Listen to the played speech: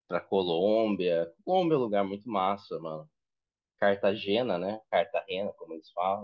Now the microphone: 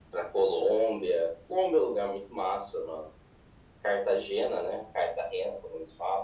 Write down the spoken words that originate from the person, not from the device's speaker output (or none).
none